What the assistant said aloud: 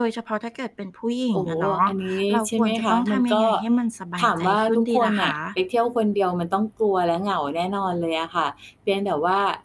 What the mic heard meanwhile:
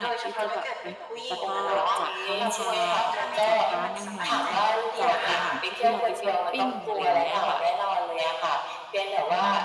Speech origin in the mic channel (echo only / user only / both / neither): both